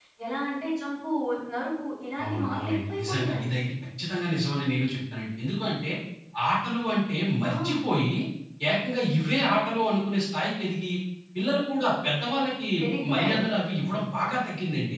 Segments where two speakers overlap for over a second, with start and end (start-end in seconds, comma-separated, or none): 2.2-3.4